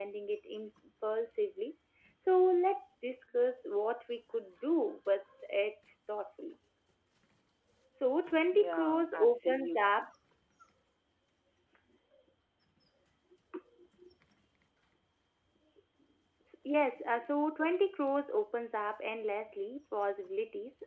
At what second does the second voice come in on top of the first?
8.5 s

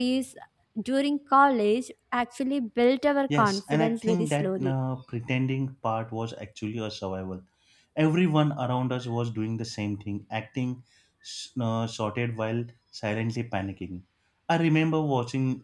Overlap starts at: 3.3 s

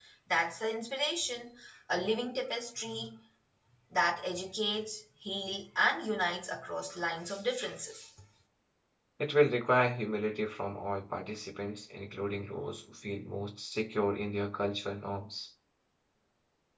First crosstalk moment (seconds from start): none

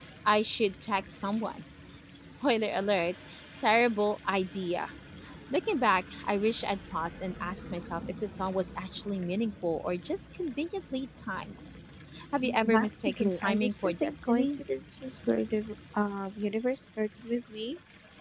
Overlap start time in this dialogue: 12.6 s

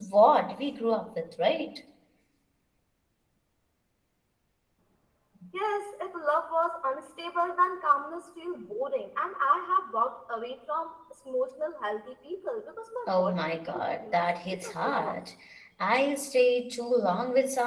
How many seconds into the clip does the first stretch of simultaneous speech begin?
13.1 s

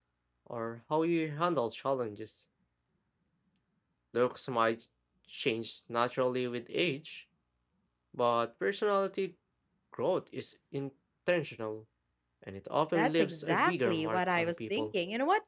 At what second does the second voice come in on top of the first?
12.9 s

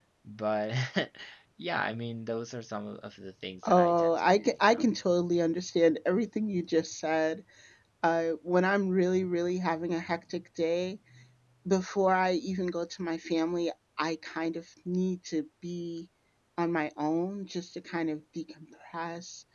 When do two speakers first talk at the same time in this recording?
3.6 s

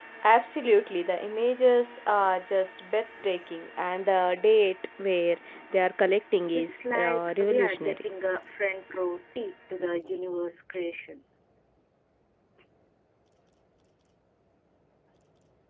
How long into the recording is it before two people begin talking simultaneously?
6.5 s

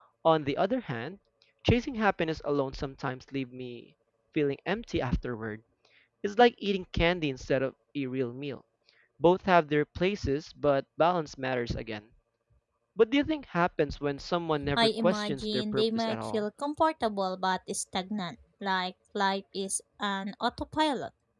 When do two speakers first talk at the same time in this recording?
14.8 s

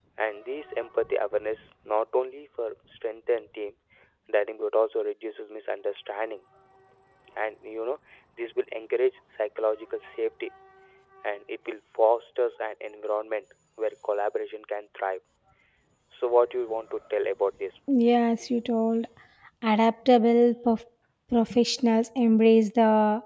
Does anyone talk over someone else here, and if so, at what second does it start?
none

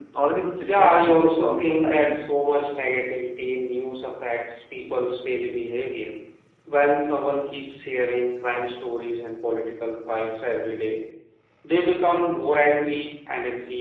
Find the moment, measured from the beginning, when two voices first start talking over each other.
0.6 s

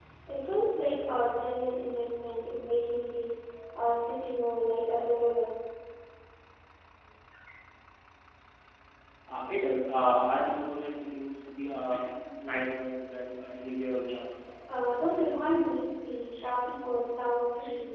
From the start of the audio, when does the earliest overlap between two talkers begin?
none

